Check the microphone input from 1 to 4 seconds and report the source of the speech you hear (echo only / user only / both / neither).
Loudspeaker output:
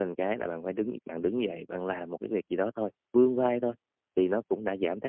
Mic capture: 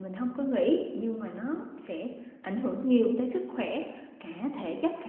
user only